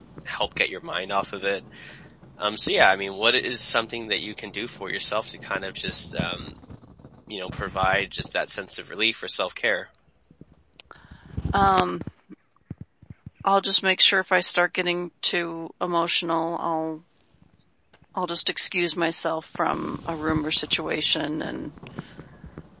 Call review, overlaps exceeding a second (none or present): none